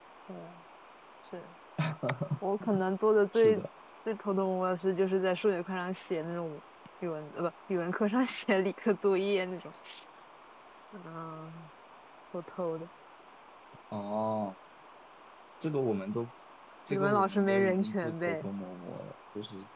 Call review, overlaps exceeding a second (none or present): present